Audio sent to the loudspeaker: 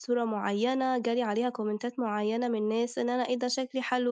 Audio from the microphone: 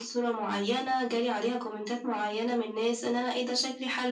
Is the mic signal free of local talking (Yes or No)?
Yes